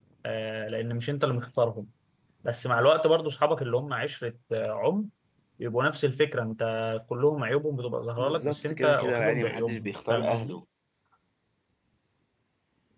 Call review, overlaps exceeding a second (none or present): present